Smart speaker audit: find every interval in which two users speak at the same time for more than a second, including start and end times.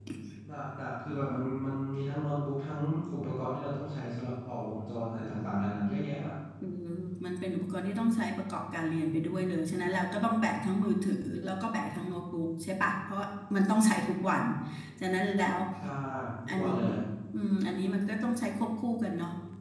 none

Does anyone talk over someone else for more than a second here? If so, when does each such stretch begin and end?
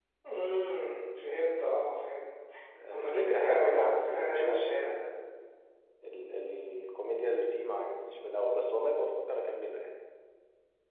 2.9-4.9

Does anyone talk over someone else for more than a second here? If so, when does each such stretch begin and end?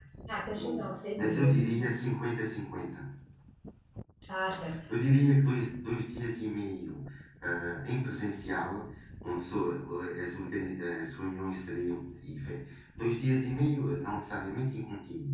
0.5-1.9

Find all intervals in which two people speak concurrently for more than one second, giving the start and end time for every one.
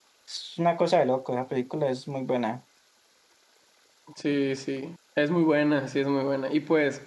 none

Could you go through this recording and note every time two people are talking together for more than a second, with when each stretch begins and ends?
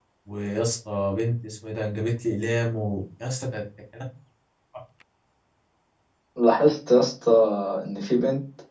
none

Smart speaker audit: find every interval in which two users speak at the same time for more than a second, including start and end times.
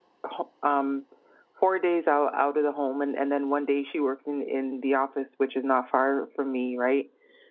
none

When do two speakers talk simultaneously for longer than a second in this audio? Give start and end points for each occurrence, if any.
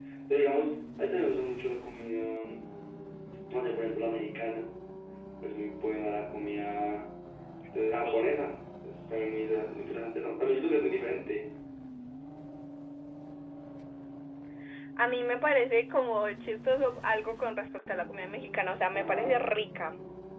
none

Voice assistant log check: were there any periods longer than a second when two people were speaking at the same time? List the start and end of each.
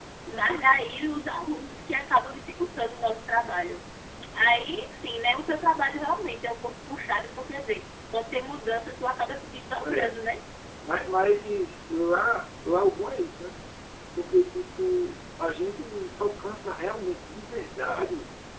none

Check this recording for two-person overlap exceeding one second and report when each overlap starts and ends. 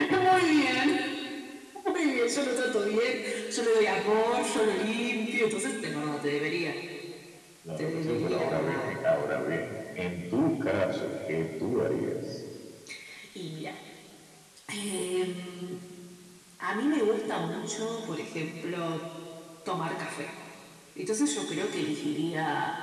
7.8-9.0

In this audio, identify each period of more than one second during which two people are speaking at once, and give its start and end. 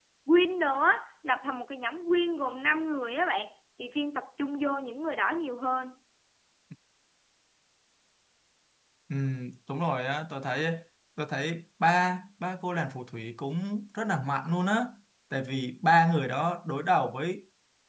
none

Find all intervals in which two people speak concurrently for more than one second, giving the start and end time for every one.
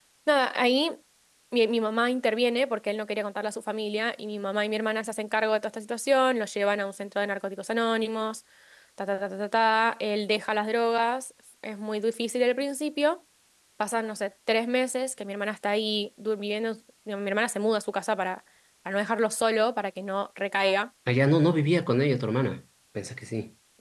none

